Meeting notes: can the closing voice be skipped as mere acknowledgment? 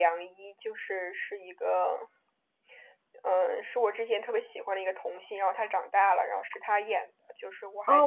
No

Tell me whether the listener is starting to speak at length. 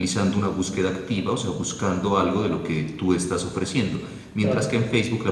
No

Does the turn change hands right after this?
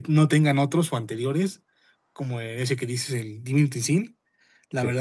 No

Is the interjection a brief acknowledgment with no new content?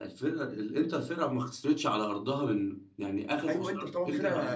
No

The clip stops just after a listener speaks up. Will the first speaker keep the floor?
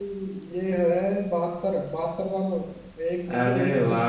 No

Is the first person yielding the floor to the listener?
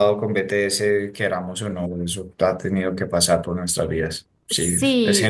Yes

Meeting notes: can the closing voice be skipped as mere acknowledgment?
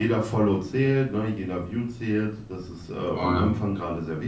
Yes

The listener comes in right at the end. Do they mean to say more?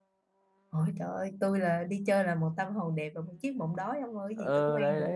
Yes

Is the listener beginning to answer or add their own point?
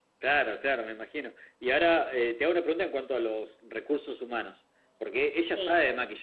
No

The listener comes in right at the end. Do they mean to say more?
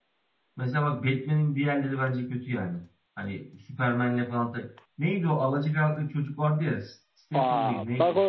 Yes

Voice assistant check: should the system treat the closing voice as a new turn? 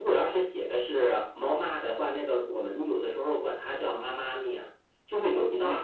No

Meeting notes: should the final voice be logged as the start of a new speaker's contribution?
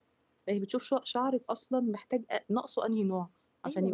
Yes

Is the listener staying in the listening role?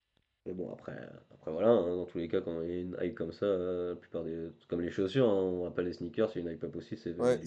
No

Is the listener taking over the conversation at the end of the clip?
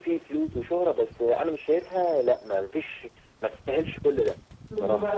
Yes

